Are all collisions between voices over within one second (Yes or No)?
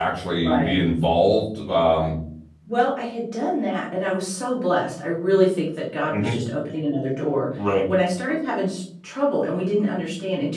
Yes